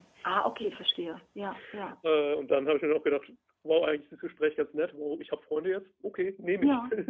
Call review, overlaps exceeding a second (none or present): none